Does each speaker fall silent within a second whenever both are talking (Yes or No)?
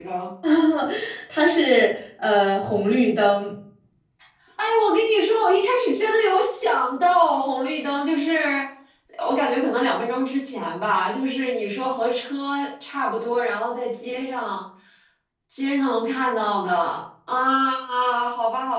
Yes